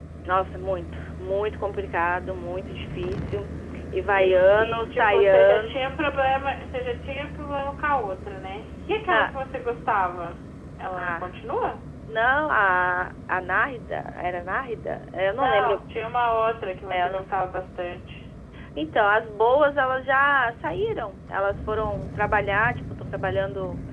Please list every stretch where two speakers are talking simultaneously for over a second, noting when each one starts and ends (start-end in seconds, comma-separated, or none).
4.1-5.9